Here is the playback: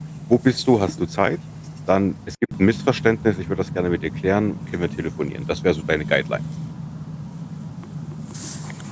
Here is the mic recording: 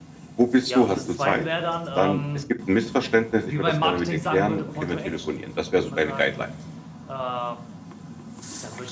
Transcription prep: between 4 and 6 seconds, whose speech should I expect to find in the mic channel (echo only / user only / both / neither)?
both